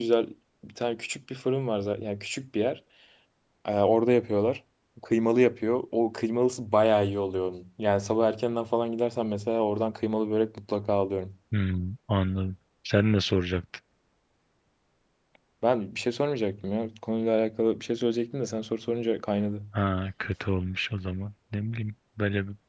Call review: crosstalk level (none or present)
none